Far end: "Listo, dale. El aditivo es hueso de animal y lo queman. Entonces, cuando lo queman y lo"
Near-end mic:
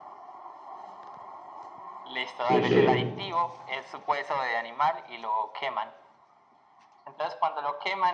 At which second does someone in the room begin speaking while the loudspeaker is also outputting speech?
2.5 s

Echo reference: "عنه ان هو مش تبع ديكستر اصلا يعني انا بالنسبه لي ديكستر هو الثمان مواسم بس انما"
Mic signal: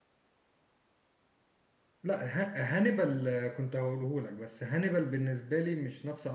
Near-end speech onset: 2.0 s

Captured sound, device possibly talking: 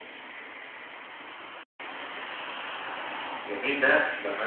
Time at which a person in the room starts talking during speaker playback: 3.5 s

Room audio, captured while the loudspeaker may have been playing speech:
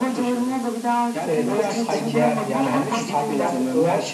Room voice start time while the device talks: 1.2 s

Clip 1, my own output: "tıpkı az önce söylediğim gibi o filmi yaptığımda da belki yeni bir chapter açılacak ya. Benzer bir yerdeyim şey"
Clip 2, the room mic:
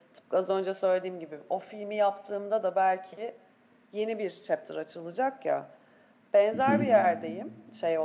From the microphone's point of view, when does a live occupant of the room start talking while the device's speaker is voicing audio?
6.5 s

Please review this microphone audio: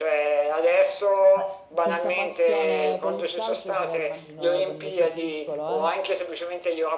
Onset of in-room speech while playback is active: 1.4 s

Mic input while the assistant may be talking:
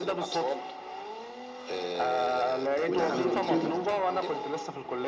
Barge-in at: 2.9 s

